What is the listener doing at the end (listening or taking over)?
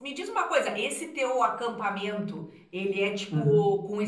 listening